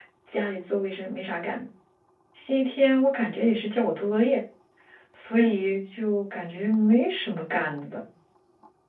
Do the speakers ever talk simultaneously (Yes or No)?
No